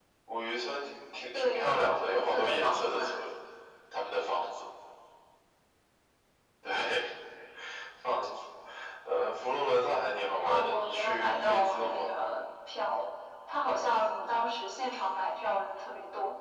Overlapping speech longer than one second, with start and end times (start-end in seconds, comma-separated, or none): 1.3-3.0, 10.4-12.1